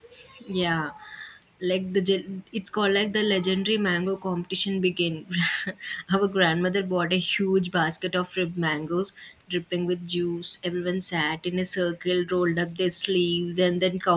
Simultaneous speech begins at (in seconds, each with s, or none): none